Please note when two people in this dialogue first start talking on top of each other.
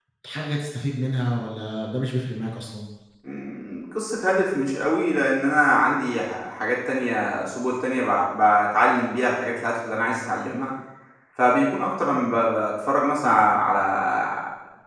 none

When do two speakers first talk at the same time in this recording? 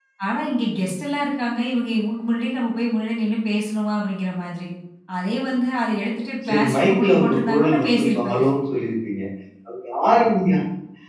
6.5 s

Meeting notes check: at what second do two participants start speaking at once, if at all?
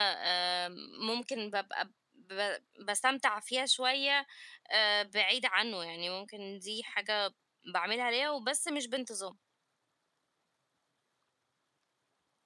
none

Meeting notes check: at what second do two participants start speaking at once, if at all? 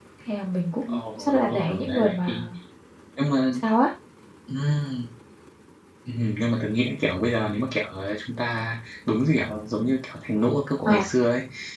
0.9 s

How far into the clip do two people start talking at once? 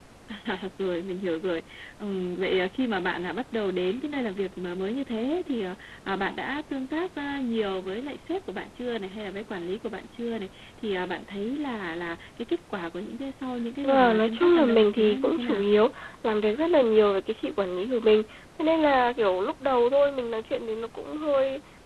13.8 s

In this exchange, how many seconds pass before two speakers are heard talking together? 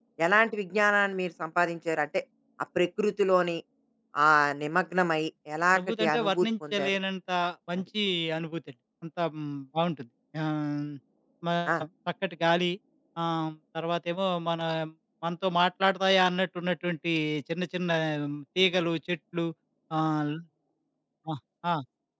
5.7 s

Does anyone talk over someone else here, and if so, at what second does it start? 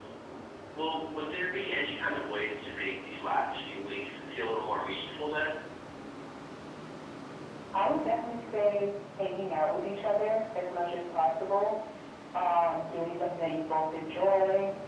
none

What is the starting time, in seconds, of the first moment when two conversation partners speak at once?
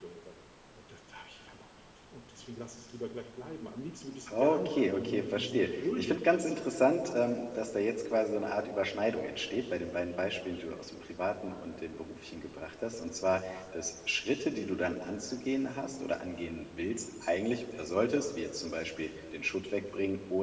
4.3 s

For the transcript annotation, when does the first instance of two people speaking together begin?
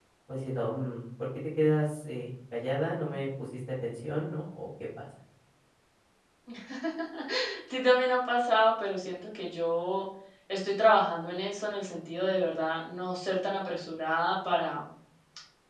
none

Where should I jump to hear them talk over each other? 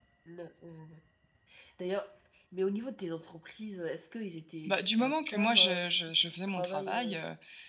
4.6 s

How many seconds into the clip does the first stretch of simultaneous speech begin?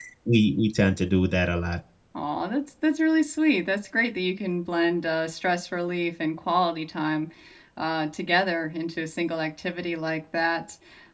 none

